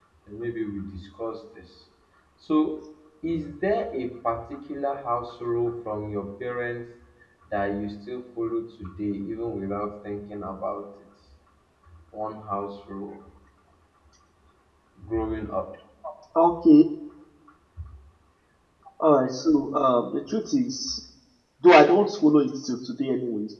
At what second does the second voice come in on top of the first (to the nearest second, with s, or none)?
none